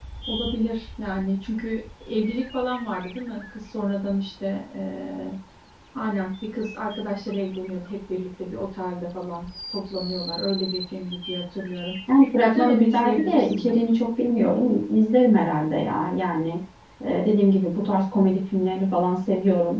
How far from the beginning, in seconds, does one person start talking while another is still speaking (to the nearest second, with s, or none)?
12 s